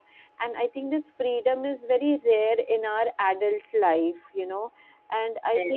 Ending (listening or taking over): listening